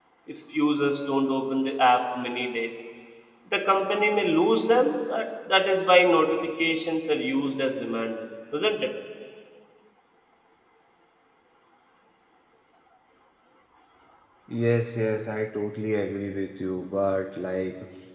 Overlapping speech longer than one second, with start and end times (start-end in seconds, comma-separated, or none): none